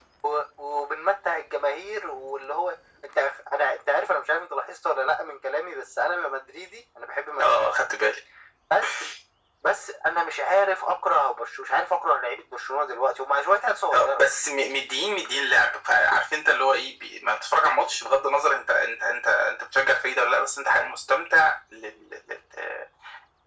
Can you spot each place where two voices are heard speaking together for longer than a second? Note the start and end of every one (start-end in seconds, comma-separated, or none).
none